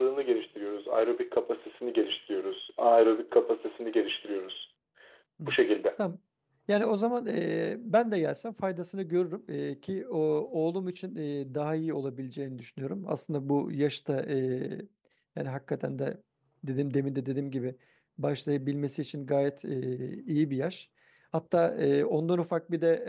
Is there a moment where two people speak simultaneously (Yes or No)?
No